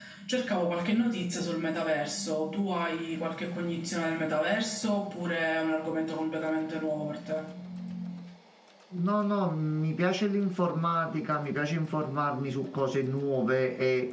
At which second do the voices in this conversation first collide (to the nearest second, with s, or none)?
none